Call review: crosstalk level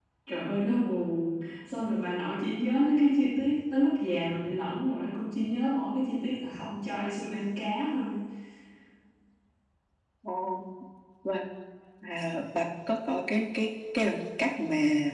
none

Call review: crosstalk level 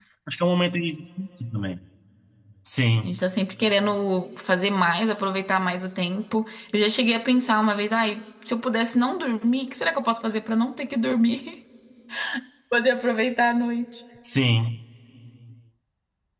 none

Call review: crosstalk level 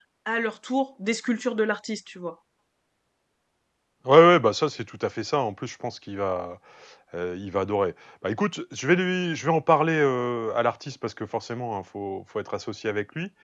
none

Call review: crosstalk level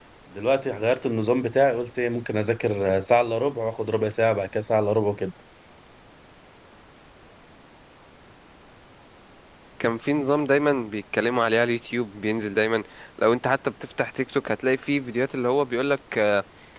none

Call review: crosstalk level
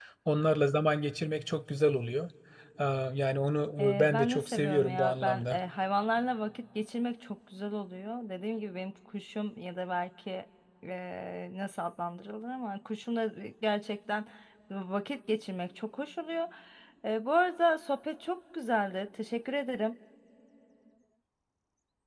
present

